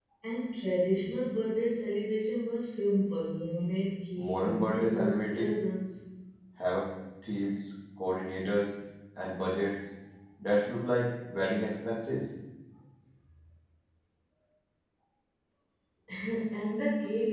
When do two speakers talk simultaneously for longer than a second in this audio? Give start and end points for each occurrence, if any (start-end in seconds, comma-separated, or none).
4.2-5.5